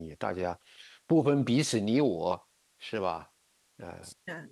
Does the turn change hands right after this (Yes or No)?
Yes